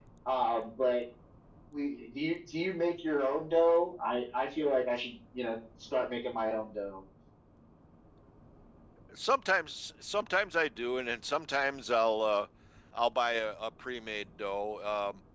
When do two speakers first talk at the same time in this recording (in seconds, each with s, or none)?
none